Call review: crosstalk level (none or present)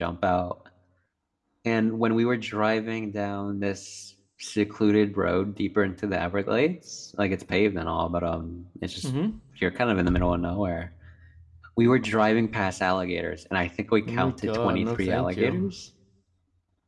present